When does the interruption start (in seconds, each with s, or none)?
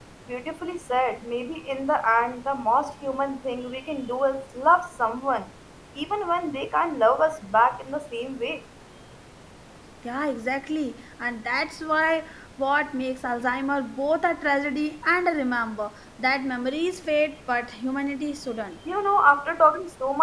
none